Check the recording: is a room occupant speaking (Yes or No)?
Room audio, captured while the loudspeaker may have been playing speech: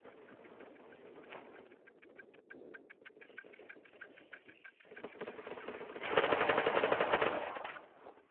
No